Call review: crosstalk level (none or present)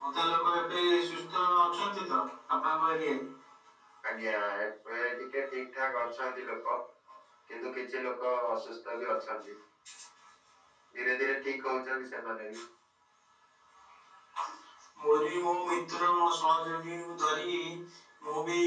none